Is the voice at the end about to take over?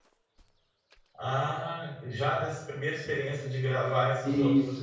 Yes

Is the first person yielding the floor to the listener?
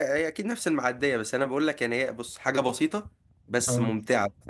No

